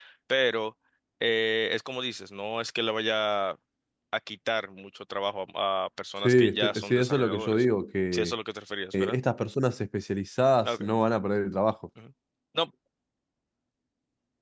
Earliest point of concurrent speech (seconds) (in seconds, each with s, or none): 6.2 s